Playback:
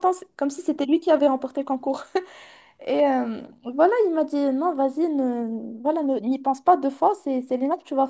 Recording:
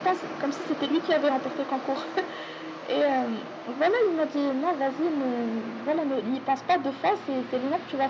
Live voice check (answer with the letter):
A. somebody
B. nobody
B